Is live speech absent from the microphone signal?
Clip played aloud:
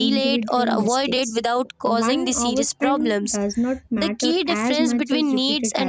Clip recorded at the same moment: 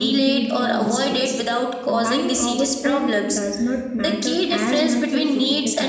Yes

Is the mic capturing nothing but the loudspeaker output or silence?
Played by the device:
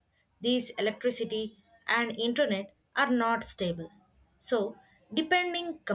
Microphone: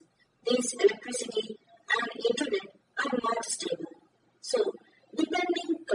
Yes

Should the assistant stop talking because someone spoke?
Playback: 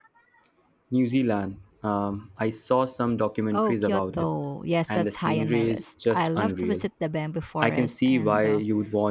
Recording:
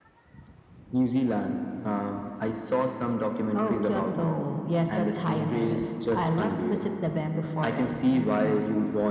No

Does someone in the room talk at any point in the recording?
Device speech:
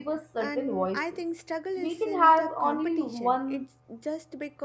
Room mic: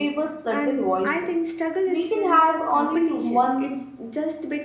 No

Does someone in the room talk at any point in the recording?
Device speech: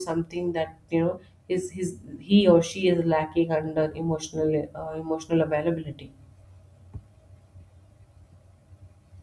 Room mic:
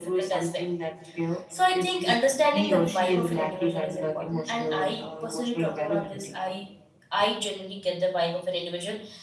Yes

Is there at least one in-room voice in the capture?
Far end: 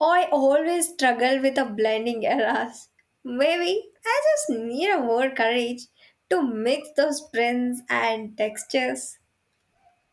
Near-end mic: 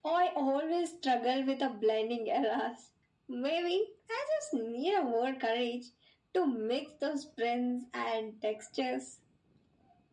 No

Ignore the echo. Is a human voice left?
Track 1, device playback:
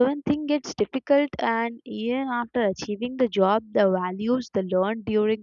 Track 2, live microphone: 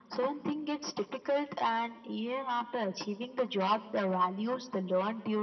No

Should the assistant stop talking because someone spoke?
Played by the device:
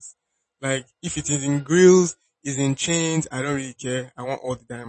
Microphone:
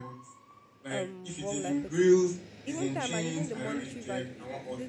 Yes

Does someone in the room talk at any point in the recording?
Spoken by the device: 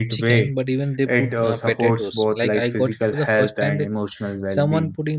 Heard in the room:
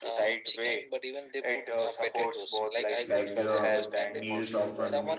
Yes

